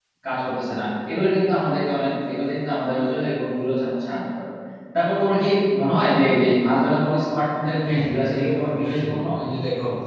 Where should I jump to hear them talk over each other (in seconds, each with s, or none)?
7.8 s